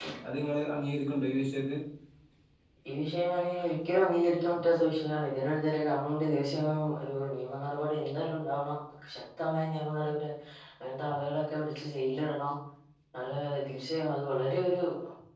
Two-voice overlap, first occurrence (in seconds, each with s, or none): none